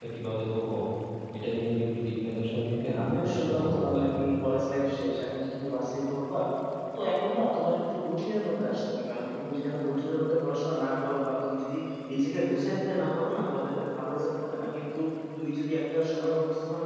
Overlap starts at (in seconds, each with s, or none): 2.8 s